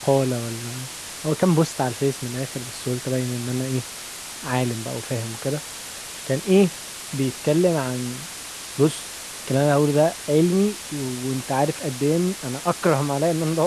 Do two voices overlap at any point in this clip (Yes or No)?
No